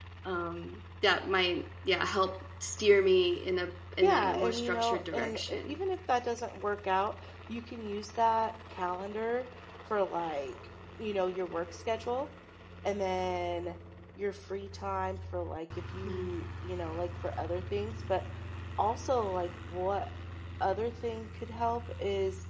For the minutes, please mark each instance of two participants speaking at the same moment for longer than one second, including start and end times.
4.0-5.8

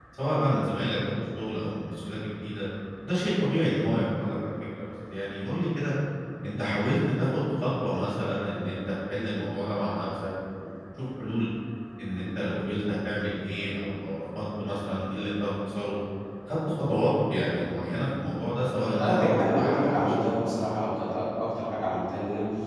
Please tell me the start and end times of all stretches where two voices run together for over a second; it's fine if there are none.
19.0-20.3

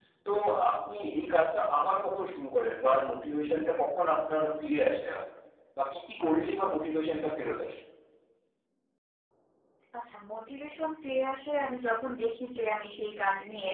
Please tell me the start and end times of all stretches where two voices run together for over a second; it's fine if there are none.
none

